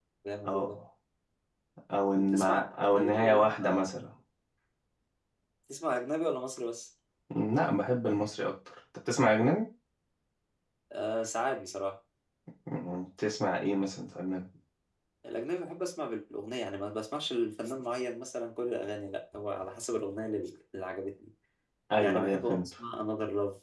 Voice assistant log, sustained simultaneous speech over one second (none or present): present